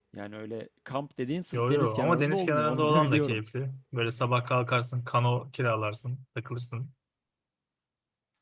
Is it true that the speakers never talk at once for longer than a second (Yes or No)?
No